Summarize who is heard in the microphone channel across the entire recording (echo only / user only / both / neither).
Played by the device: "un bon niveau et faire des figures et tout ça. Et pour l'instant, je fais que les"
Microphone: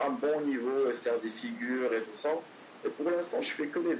echo only